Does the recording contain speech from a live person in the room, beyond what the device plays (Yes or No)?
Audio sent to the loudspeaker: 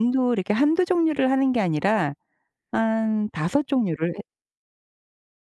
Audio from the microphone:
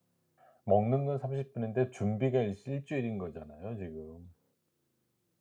Yes